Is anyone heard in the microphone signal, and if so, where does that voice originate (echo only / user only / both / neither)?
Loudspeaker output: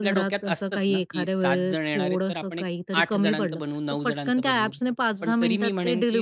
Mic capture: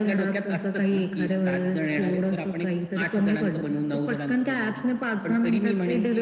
echo only